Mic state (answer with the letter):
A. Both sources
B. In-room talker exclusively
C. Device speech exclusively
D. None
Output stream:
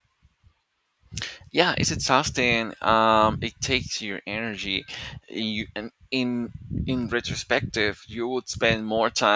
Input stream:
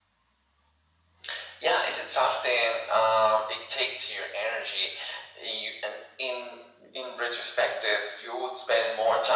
C